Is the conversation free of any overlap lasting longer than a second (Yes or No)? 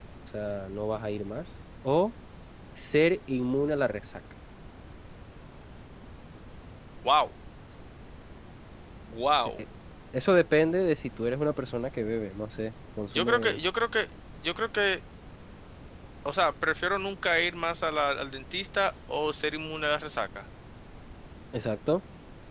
Yes